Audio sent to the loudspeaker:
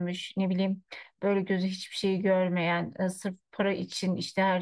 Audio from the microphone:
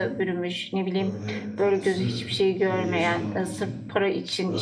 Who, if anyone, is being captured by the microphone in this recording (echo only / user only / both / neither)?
both